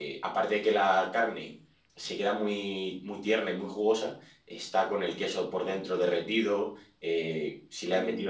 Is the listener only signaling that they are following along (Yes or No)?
Yes